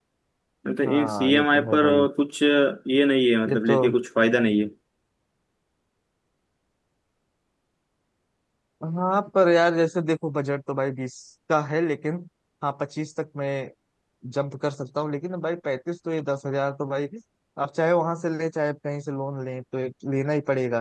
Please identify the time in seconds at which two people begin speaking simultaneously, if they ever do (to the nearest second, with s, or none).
1 s